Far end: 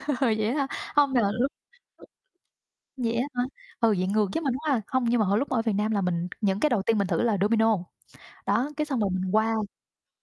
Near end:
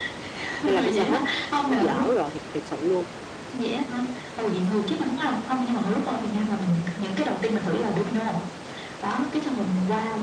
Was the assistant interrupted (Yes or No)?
Yes